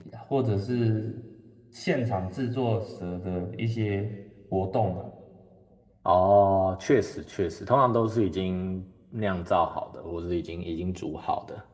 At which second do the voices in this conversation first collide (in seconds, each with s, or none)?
none